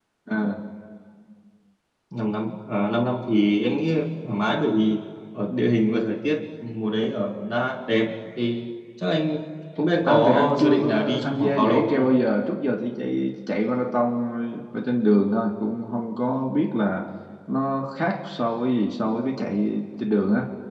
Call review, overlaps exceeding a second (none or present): present